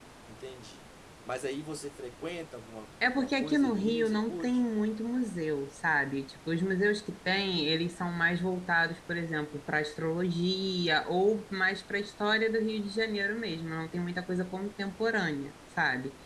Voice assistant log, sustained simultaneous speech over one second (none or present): present